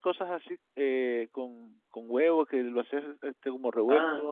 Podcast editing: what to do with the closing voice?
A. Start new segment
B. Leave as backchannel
A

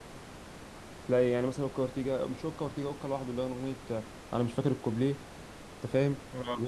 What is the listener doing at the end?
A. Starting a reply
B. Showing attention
A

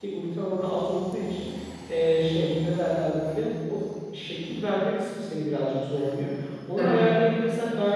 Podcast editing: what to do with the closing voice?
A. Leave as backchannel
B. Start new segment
A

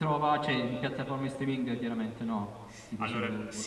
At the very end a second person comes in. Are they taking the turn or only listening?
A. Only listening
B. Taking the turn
B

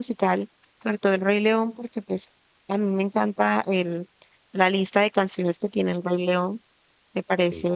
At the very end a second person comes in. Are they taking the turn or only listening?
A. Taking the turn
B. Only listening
B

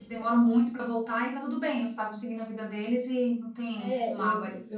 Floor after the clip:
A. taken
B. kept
A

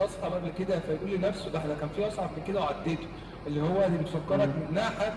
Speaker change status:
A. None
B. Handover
A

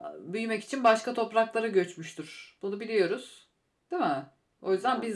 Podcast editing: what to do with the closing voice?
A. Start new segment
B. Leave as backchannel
B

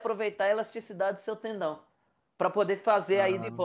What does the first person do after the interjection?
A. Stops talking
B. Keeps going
B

